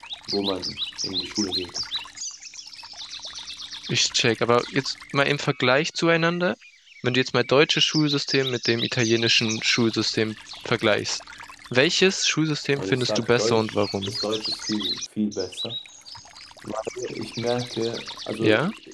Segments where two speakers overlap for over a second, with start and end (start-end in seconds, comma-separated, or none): 12.8-14.2